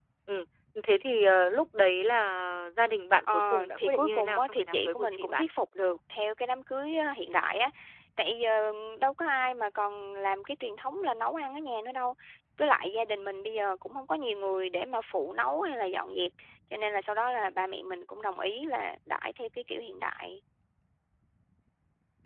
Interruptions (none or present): present